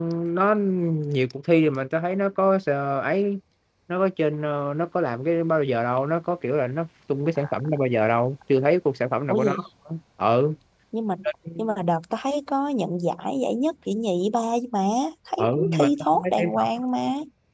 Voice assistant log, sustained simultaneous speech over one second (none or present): present